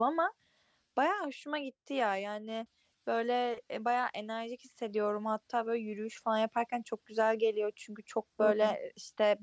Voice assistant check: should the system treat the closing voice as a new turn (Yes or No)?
No